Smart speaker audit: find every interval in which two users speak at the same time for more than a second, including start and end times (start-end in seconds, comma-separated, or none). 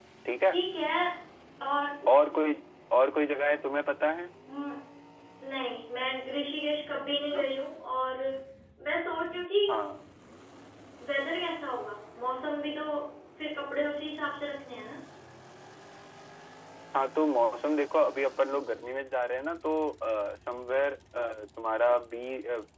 none